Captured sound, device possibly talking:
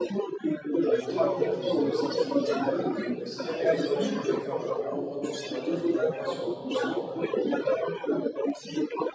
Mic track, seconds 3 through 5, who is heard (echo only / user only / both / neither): both